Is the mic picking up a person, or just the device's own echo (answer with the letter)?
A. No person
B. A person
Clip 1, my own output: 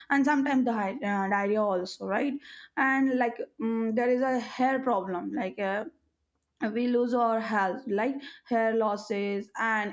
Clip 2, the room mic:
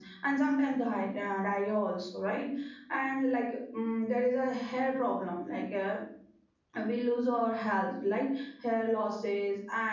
A